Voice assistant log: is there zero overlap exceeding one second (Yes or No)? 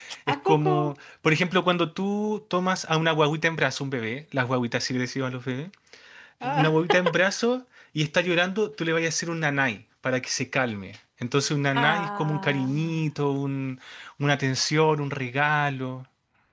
No